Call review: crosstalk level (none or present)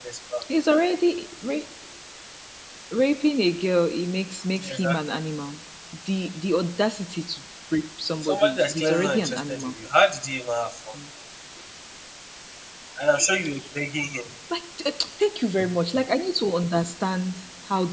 present